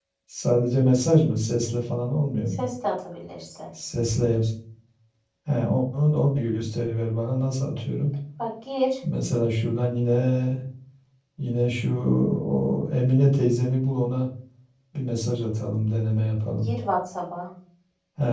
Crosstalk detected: No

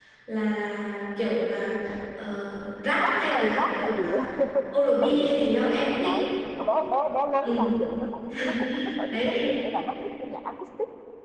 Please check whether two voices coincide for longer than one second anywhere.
Yes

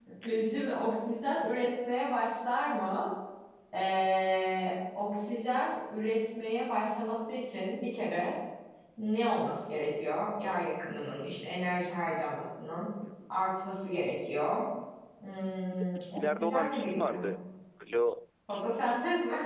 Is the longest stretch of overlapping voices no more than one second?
No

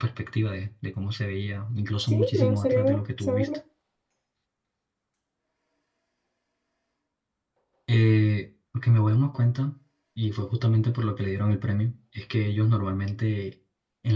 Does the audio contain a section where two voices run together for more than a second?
Yes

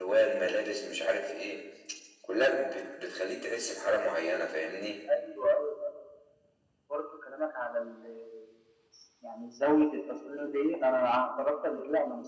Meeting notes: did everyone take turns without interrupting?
Yes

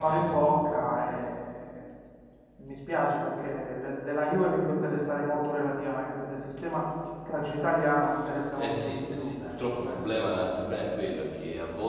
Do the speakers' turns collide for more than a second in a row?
Yes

